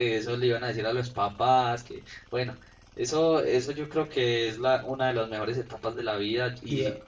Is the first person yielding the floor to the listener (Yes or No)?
No